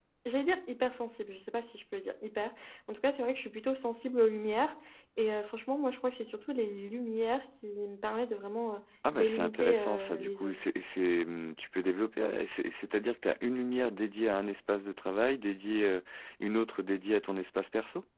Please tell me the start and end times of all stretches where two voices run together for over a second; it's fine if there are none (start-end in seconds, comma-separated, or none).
9.1-10.6